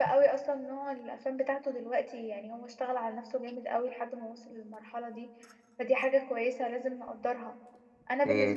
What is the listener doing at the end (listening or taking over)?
listening